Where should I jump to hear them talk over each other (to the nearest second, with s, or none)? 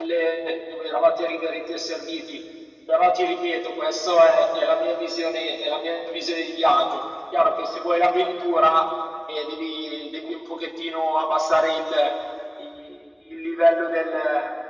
none